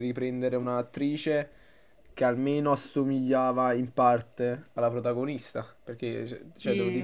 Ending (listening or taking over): listening